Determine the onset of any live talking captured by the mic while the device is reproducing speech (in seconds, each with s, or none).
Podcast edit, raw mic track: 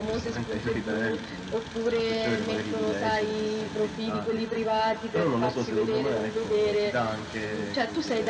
none